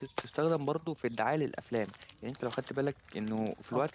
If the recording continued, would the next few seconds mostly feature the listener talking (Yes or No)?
No